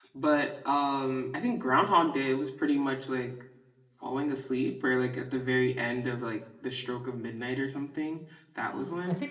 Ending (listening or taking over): taking over